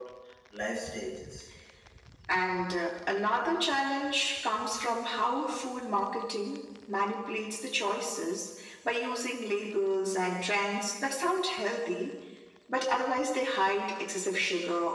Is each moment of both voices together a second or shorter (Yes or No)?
Yes